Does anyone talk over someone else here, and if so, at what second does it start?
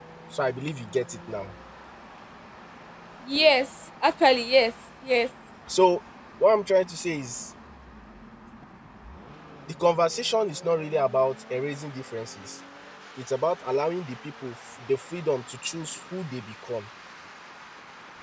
none

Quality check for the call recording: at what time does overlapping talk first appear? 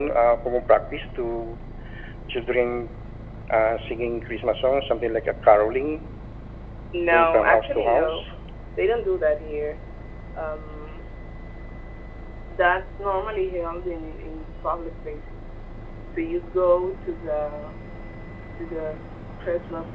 7.1 s

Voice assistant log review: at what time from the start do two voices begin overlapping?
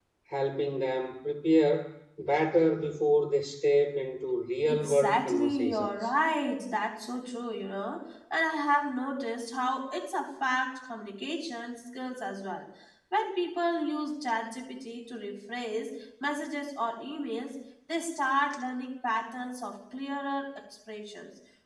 4.7 s

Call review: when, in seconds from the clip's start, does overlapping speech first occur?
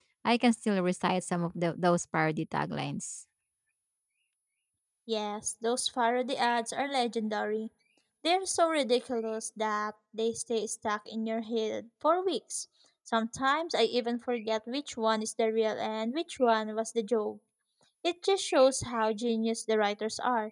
none

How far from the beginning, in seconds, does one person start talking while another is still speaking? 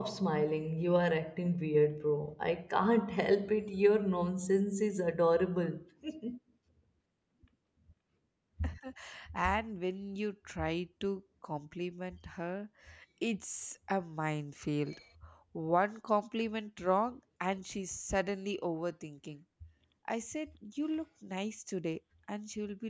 none

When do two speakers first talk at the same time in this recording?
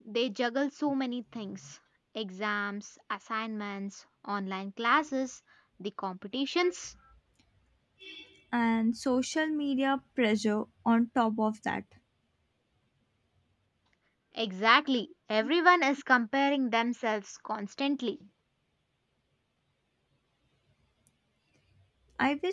none

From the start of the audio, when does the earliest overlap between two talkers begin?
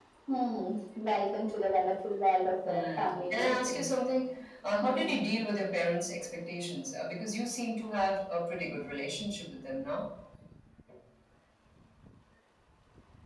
2.6 s

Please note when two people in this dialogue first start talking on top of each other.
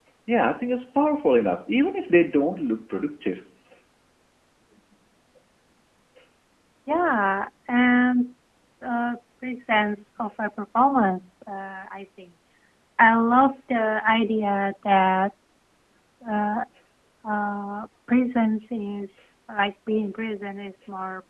none

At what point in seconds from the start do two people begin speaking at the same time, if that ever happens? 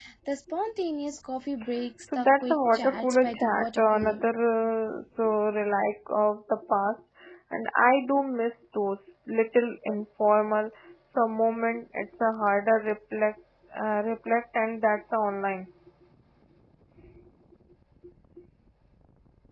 2.0 s

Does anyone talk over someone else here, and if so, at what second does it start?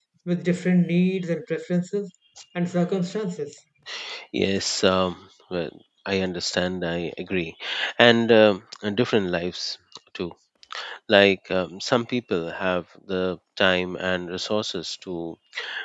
none

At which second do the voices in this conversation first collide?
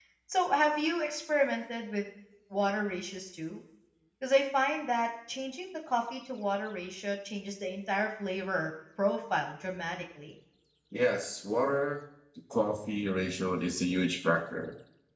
none

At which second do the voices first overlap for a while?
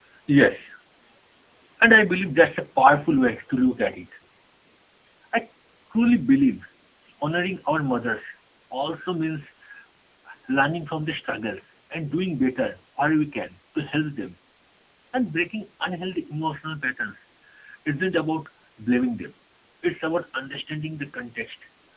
none

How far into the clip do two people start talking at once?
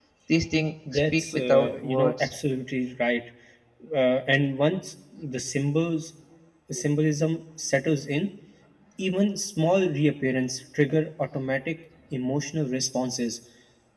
0.9 s

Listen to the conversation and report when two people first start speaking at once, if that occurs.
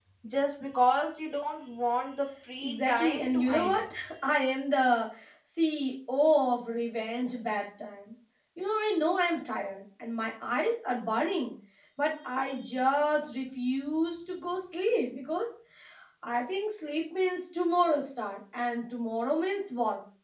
2.6 s

